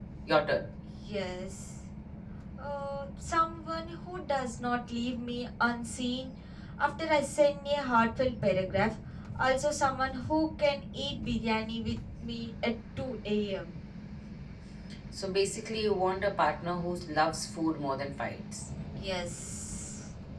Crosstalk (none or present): none